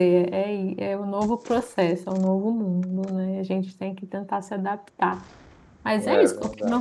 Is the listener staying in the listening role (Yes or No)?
Yes